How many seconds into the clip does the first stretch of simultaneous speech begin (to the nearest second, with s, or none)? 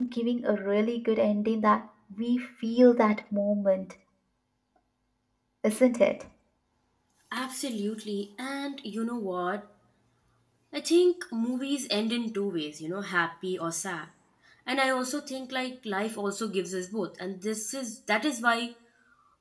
none